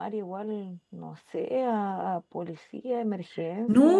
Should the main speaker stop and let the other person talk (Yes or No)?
Yes